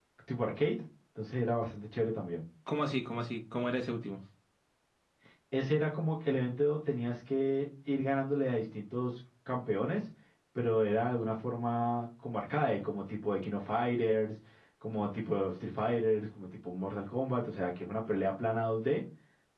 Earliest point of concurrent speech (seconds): none

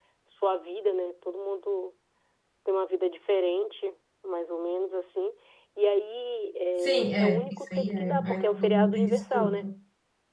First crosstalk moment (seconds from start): 7 s

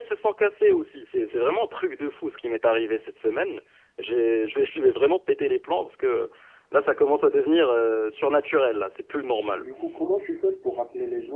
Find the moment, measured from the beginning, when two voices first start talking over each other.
none

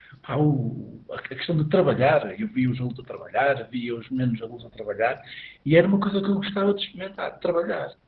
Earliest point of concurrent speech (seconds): none

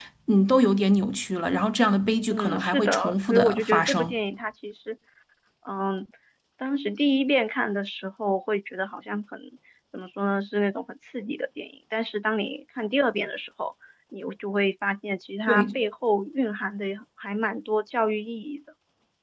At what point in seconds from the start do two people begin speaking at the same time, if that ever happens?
2 s

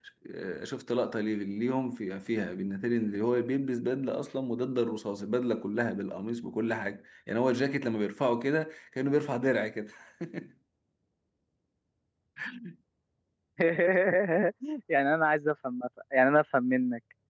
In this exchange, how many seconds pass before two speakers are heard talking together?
none

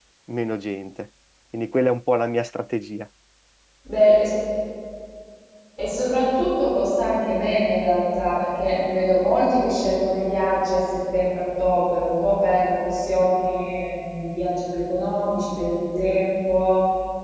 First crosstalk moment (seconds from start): none

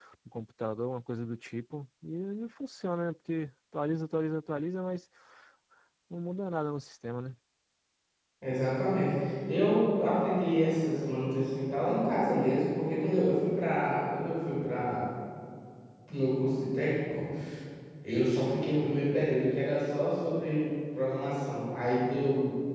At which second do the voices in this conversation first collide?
none

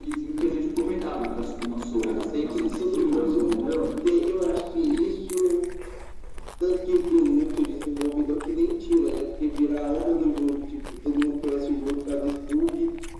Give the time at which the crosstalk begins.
2 s

